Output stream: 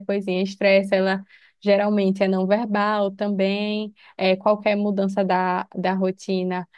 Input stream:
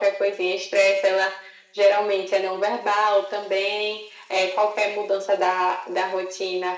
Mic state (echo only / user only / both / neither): echo only